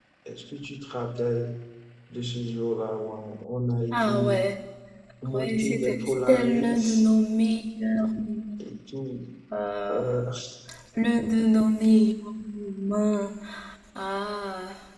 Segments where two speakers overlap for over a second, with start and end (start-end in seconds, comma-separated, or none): 5.3-7.1